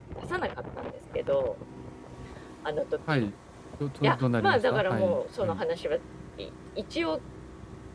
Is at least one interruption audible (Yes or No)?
Yes